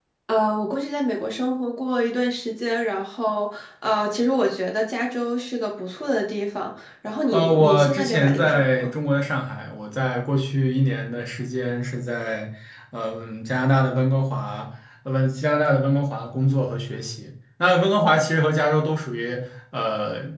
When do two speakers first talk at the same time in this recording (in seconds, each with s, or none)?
7.3 s